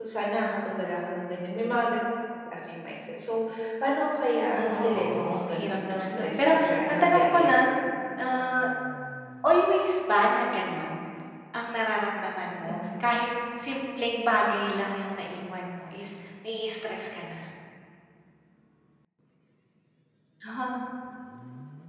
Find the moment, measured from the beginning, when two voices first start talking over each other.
5 s

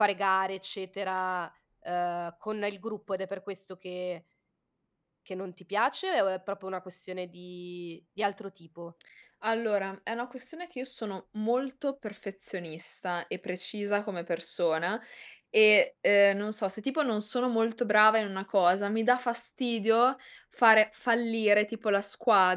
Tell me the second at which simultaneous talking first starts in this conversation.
none

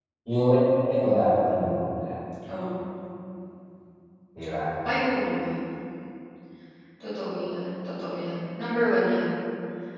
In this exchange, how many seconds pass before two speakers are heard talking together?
none

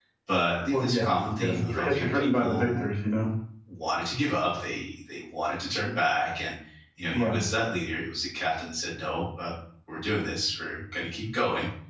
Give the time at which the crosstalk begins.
1 s

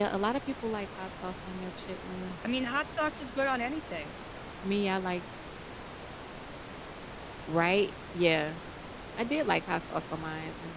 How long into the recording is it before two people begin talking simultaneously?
none

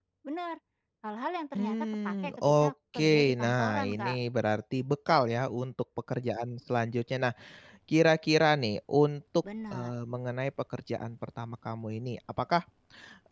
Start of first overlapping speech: 2 s

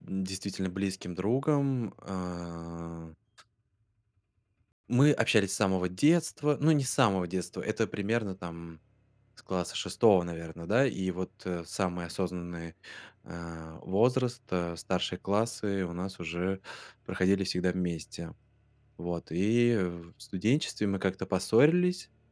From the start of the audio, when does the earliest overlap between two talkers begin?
none

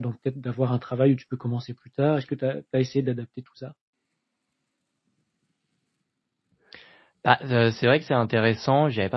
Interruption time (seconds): none

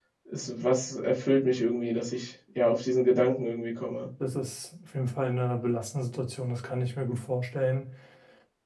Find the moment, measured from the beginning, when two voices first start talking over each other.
none

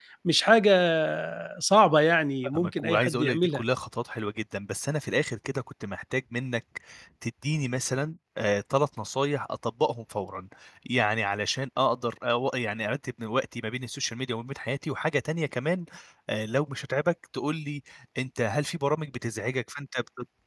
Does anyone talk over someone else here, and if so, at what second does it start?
2 s

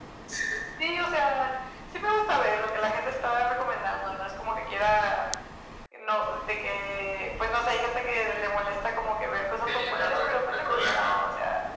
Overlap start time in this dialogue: 10 s

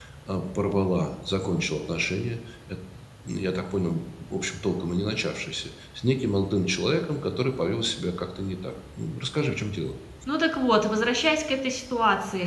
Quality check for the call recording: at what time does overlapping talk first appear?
none

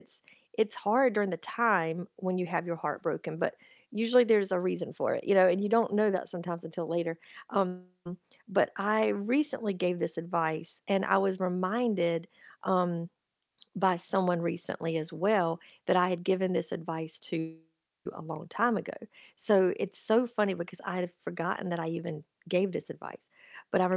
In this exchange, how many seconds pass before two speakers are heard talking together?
none

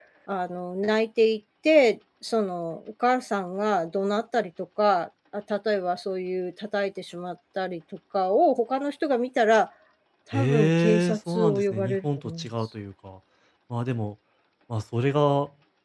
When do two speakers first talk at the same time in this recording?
10 s

